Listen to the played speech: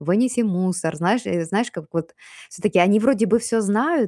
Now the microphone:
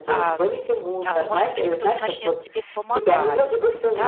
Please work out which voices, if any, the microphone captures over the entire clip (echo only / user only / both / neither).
both